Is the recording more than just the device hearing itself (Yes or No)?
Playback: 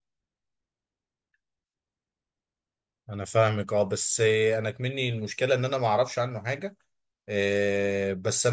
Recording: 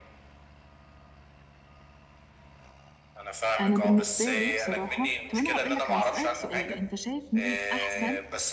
Yes